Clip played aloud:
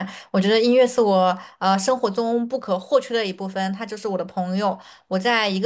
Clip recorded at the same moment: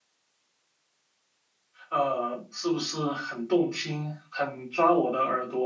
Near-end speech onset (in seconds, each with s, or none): 1.9 s